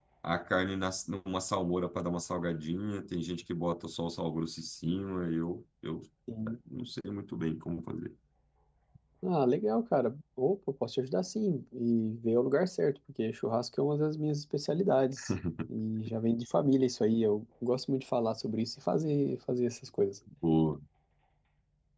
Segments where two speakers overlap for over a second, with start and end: none

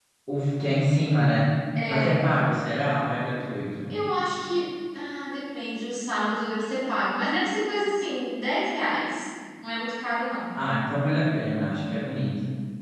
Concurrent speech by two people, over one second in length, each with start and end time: none

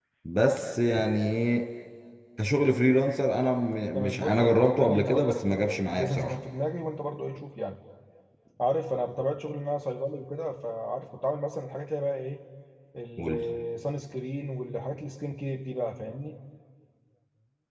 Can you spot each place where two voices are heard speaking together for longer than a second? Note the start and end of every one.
3.9-6.4

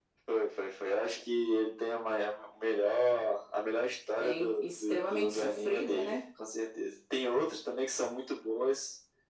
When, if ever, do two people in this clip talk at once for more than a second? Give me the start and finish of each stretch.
4.2-6.2

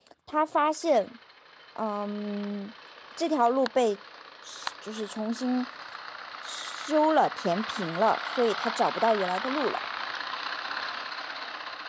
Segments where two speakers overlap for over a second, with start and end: none

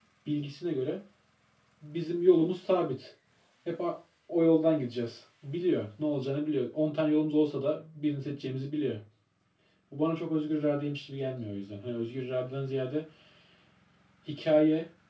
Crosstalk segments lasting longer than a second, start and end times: none

